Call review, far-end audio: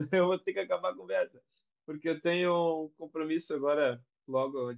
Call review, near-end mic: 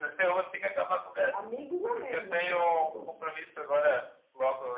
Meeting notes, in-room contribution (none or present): present